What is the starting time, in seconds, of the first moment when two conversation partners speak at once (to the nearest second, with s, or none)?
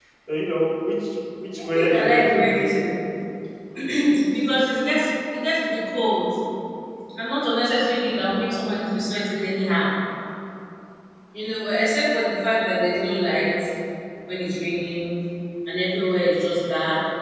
2 s